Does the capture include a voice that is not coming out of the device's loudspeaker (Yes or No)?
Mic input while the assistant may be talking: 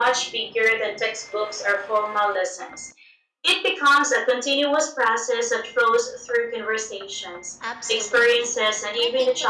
Yes